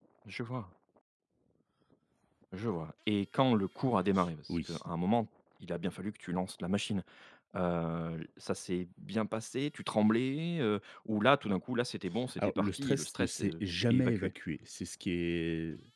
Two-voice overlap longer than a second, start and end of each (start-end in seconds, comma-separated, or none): 12.4-14.3